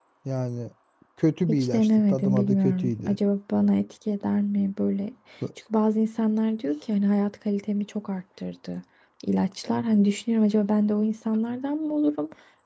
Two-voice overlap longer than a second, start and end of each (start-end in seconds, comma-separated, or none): 1.5-3.2